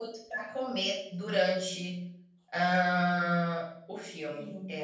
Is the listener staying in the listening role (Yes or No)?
Yes